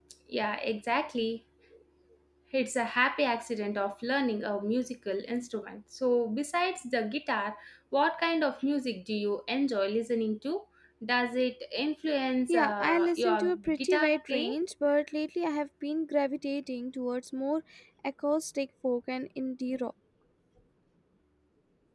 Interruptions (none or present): present